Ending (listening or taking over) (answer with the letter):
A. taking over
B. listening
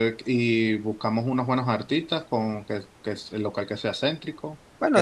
A